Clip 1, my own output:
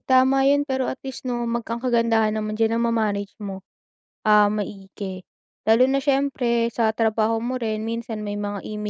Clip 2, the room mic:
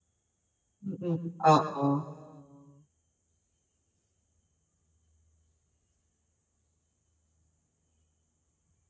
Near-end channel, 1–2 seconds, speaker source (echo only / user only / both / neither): user only